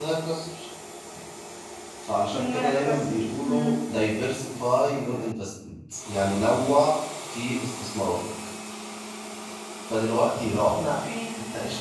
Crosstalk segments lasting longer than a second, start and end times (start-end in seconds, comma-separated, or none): 2.3-3.7